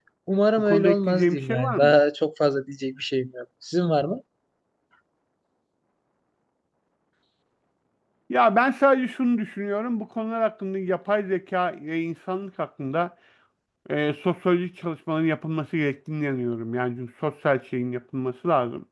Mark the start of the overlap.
0.6 s

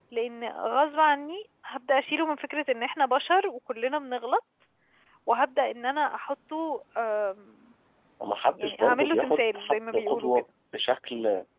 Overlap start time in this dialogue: 8.6 s

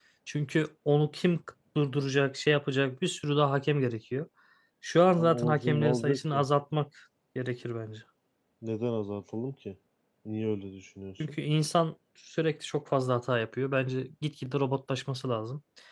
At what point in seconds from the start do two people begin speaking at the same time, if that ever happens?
5.2 s

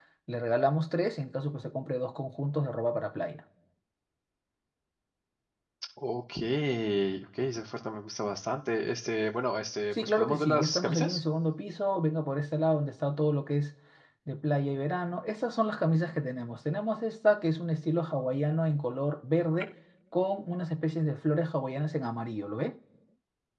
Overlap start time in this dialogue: 9.9 s

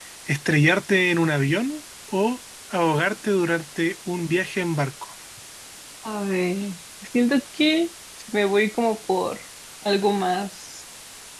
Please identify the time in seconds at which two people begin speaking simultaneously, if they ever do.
none

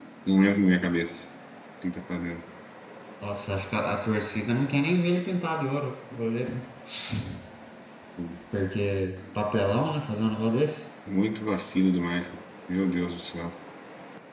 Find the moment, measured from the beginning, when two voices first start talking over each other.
none

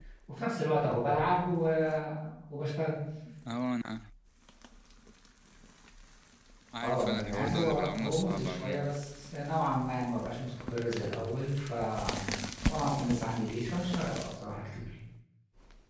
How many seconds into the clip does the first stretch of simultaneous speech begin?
6.8 s

